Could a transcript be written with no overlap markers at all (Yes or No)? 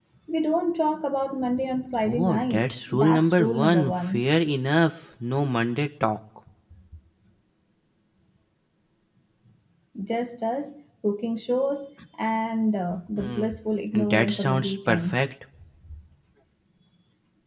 No